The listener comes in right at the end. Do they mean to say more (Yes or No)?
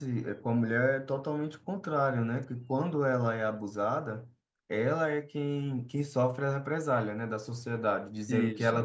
No